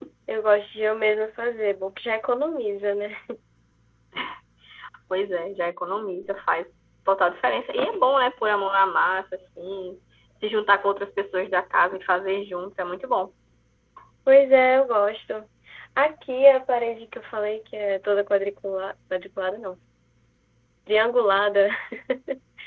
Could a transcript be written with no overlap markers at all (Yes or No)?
Yes